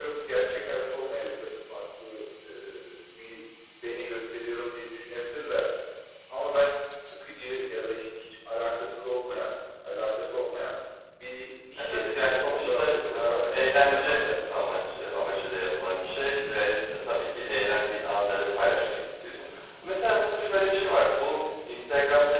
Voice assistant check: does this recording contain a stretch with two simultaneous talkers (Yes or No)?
Yes